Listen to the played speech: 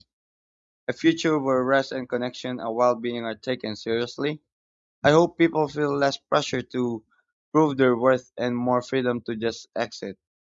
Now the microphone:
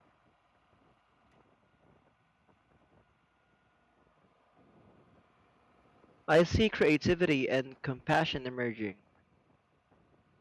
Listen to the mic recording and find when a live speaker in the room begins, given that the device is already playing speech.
6.2 s

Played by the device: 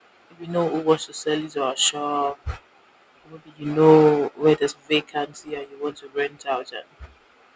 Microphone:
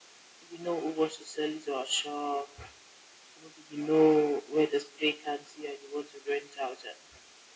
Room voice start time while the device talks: none

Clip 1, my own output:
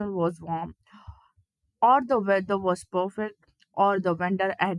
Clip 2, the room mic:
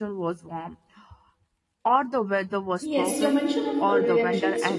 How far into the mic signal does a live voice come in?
2.8 s

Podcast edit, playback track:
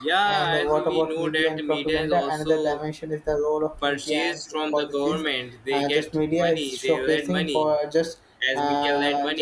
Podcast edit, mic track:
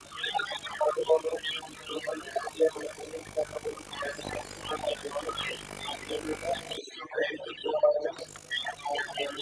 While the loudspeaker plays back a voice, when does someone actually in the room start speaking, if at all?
none

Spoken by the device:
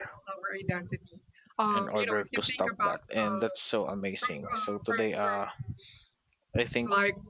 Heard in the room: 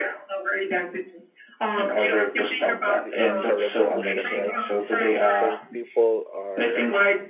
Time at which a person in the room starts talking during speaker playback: 2.9 s

